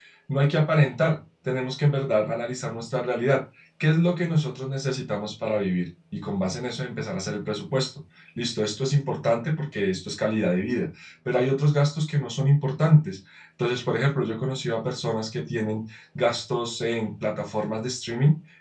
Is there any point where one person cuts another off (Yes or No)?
No